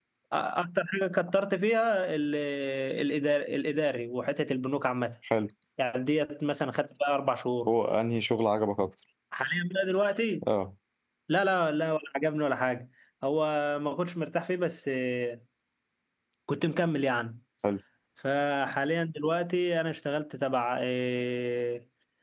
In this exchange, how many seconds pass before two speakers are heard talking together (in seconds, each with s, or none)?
none